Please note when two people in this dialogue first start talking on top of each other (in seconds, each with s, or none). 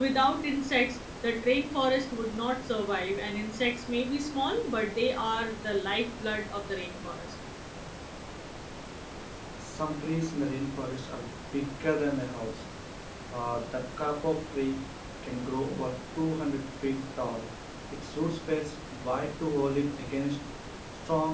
none